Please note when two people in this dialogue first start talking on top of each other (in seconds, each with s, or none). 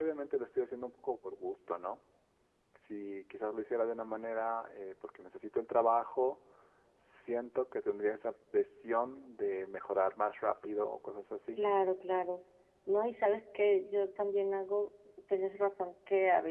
none